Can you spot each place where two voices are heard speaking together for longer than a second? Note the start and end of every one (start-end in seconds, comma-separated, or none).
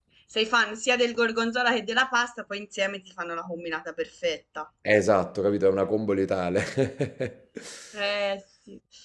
none